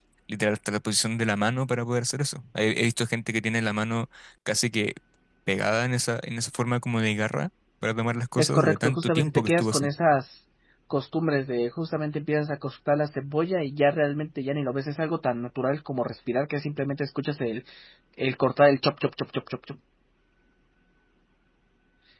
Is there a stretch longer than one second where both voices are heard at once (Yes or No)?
Yes